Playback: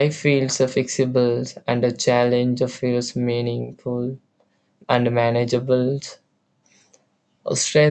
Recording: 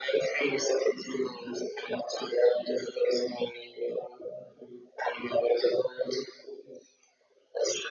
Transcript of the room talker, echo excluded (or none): none